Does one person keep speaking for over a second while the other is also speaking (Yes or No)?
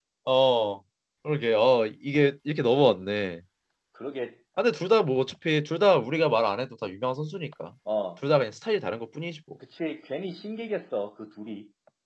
No